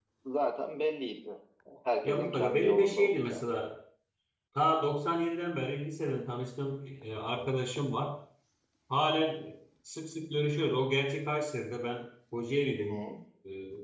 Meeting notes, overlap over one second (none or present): present